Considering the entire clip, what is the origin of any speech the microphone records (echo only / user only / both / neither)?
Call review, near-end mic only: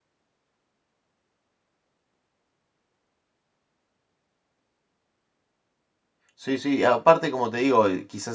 user only